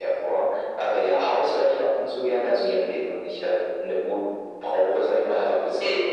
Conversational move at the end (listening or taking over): listening